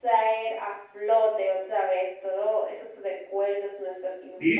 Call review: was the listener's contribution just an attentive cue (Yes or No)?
No